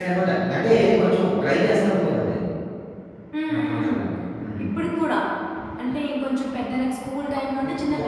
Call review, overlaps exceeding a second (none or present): none